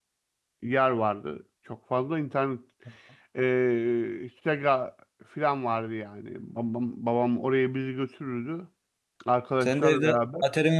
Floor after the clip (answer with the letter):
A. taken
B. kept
A